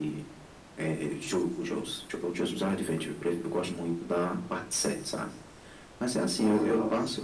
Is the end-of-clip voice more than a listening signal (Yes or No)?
No